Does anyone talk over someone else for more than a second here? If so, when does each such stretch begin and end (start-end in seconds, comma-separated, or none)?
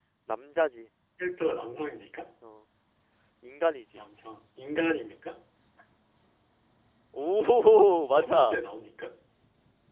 none